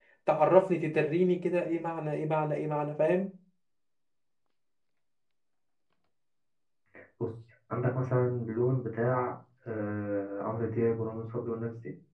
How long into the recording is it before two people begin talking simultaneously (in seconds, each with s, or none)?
none